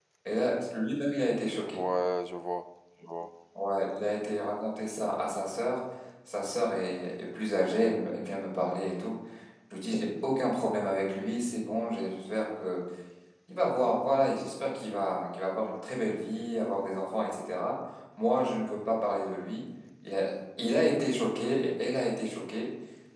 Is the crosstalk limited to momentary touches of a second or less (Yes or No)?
Yes